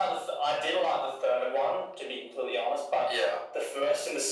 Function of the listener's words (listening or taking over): listening